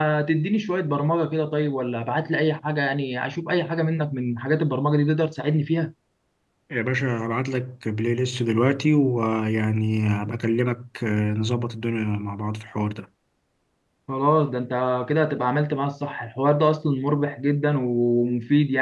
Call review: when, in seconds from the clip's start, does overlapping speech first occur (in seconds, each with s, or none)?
none